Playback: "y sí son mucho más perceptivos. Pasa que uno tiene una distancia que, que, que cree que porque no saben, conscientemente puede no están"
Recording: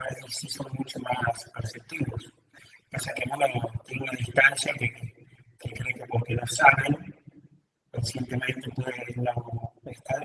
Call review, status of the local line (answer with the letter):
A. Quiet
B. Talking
A